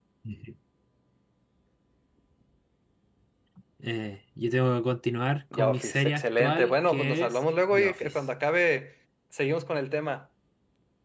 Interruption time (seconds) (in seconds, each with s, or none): 5.5 s